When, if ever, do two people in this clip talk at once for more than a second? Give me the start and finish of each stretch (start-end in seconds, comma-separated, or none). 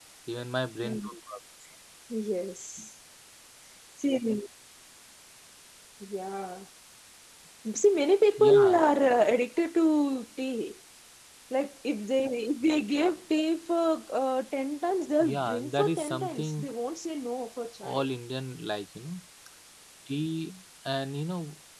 15.2-16.7